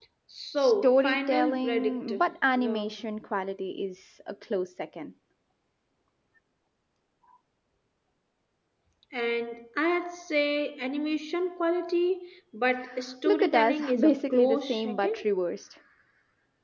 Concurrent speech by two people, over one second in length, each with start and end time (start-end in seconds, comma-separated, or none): 0.6-2.1, 13.2-15.2